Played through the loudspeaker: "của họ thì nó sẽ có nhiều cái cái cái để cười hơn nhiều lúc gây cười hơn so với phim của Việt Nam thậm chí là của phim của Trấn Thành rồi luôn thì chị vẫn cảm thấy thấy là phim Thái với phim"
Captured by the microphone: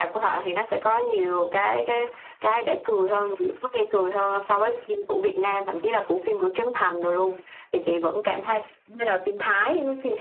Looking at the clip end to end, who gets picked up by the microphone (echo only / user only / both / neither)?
echo only